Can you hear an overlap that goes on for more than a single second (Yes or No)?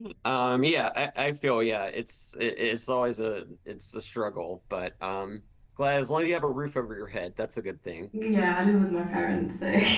No